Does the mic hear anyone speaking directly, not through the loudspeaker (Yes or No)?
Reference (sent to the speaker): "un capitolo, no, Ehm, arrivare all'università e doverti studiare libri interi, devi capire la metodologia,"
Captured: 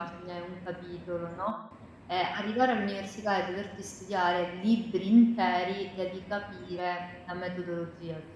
No